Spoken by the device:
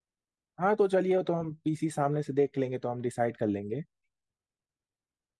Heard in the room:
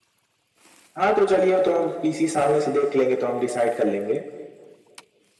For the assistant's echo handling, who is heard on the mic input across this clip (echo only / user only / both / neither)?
echo only